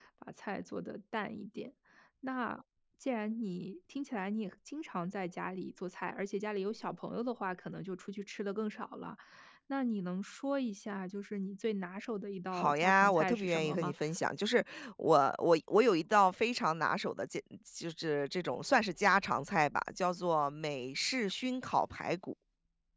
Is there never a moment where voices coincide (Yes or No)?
No